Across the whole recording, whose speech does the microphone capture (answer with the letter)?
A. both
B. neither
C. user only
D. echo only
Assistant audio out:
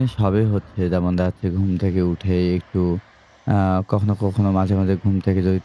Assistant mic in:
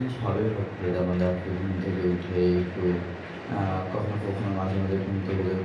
D